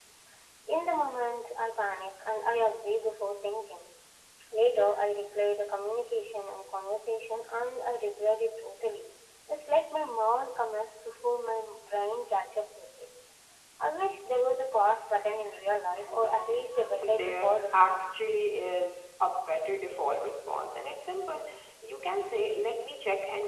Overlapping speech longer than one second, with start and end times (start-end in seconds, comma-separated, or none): 17.0-18.2